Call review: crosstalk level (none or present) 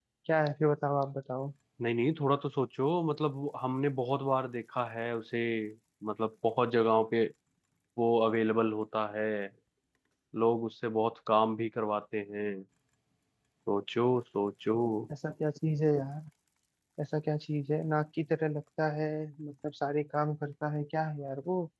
none